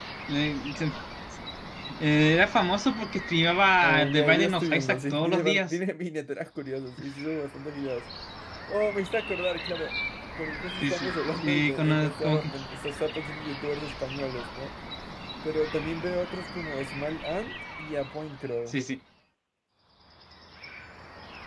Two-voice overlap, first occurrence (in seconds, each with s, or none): 3.8 s